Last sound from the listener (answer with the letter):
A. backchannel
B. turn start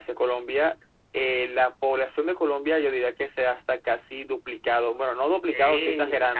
B